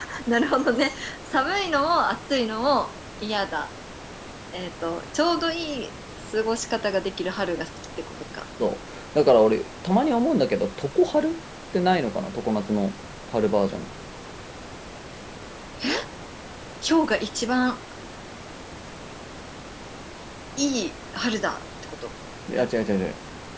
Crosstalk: none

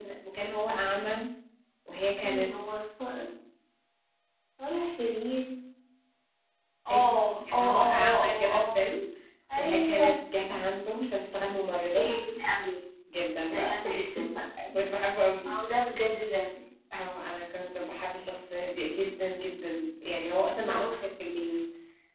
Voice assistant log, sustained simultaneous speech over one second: present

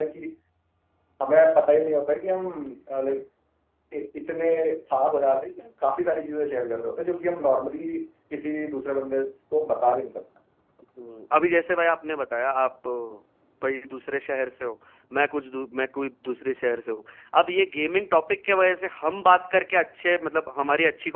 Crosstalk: none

